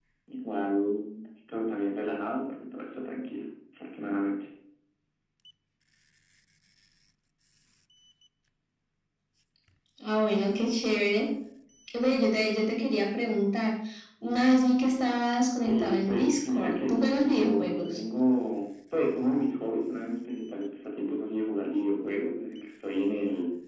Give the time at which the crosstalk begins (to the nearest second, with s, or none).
16 s